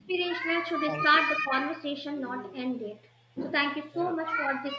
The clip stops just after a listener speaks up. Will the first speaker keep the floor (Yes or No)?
Yes